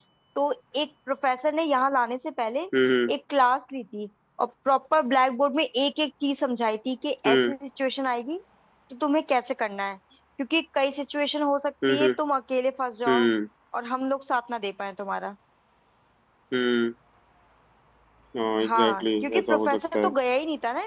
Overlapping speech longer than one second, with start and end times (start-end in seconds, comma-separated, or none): 18.6-20.1